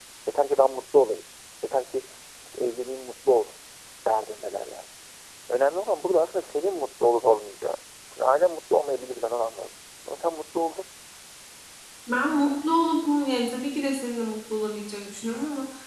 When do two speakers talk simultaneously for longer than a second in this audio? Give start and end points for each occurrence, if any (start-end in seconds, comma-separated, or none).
none